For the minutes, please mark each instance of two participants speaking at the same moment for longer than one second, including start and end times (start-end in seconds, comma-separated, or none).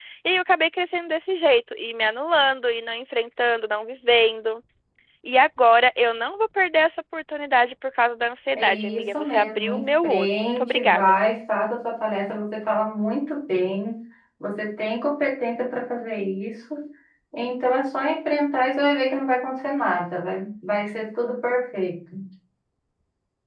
8.5-11.2